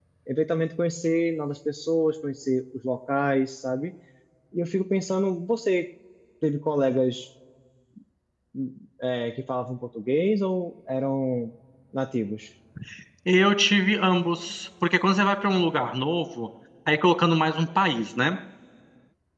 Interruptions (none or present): none